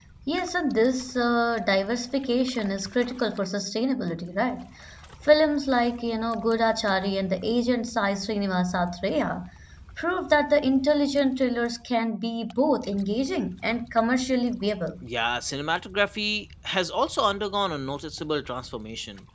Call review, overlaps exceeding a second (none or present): none